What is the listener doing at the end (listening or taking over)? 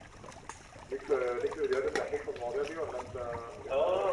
taking over